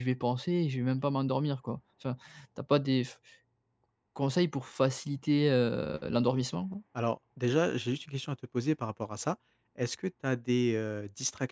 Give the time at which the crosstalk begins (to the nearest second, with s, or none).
none